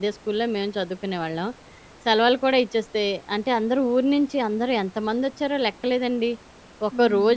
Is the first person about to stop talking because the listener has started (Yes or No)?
No